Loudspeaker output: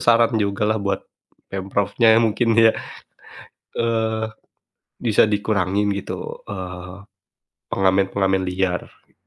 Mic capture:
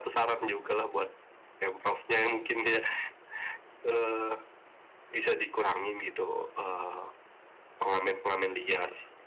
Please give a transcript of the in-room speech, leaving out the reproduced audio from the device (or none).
none